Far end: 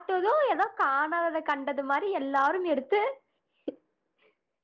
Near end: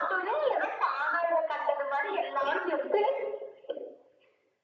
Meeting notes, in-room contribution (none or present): none